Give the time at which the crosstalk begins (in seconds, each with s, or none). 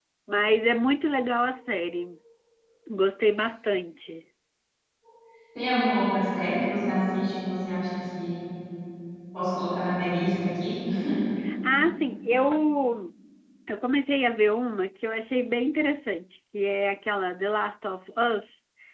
none